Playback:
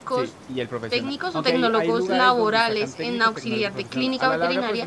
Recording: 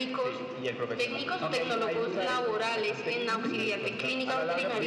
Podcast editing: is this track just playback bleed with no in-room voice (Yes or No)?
No